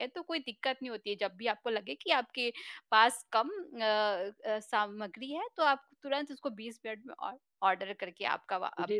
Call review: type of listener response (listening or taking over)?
taking over